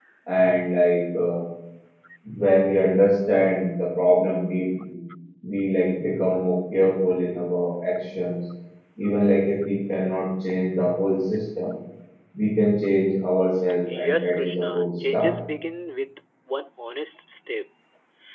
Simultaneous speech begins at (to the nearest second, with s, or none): 14 s